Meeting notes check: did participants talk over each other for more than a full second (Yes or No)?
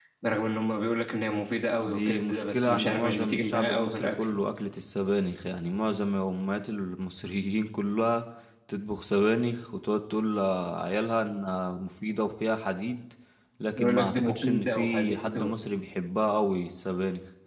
Yes